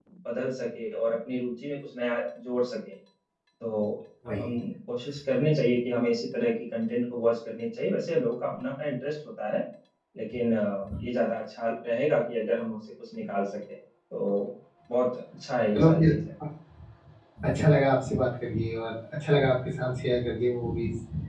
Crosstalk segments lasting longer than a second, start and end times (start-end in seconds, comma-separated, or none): none